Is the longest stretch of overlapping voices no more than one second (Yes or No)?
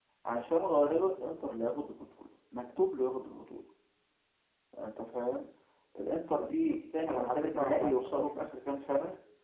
No